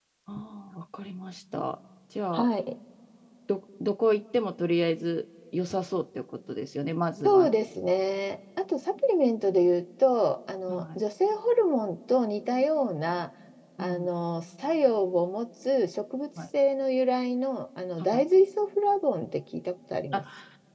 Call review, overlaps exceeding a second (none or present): none